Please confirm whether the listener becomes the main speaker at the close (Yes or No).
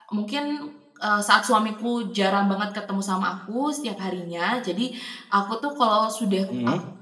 No